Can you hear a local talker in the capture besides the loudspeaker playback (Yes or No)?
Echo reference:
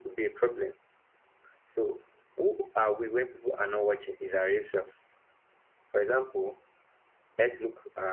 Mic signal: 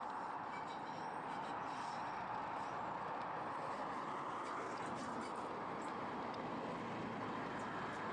No